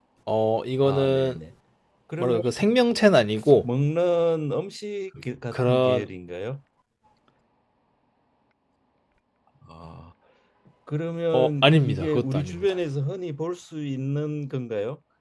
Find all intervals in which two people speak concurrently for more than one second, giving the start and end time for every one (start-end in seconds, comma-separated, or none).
11.3-12.8